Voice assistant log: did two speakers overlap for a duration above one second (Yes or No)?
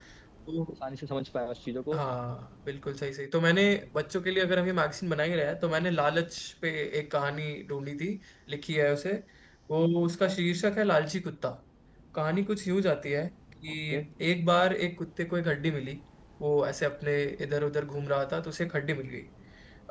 No